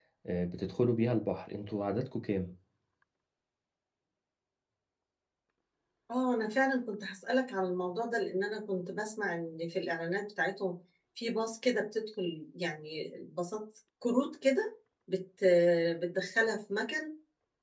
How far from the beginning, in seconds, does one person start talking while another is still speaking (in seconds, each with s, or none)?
none